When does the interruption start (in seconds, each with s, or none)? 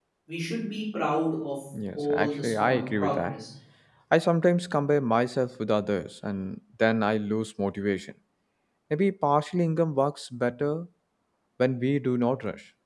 1.7 s